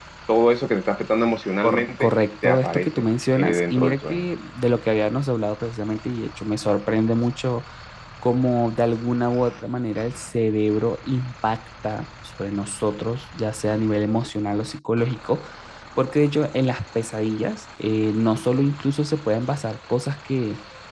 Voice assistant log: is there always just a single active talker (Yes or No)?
No